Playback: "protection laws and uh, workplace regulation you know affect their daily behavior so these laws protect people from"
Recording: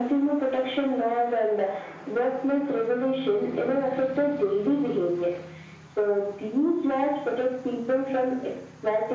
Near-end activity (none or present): none